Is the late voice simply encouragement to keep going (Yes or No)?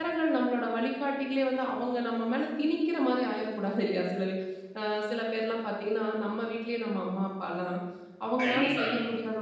Yes